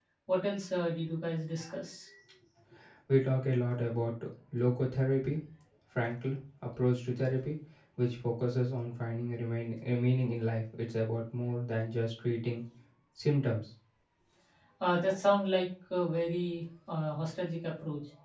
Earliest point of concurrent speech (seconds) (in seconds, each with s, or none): none